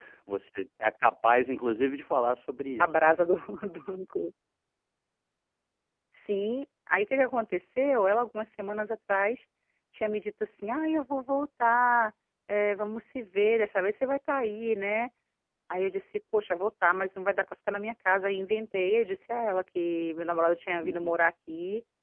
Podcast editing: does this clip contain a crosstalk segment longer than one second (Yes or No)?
No